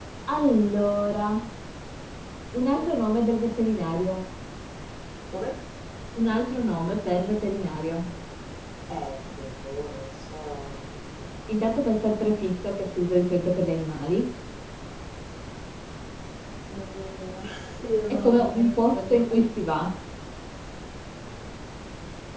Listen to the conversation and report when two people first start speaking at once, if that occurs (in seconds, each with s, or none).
18.1 s